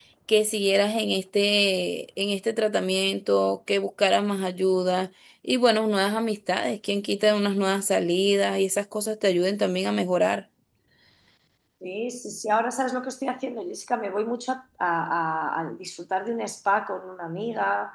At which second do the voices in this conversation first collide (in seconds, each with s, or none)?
none